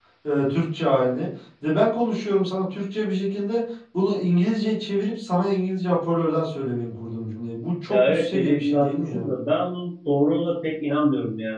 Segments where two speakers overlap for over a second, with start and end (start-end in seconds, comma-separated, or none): 7.9-9.3